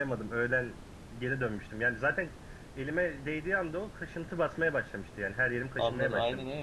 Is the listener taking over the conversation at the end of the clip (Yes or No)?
Yes